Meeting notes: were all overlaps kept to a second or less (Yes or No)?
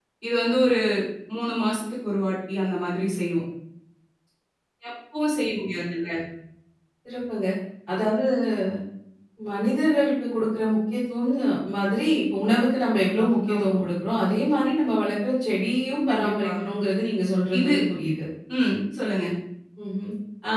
Yes